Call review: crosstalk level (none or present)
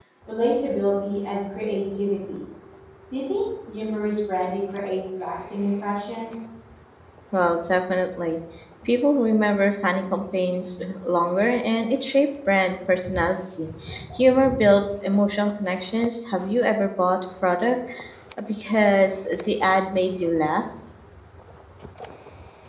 none